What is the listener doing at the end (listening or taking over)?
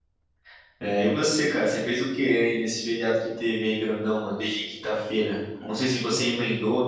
listening